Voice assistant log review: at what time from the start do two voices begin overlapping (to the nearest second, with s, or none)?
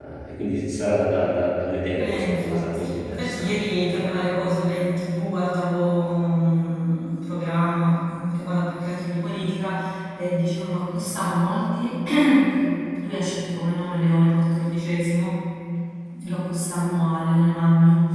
2 s